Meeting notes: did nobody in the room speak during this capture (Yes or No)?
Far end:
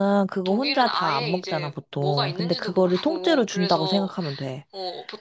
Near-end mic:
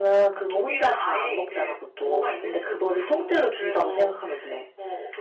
Yes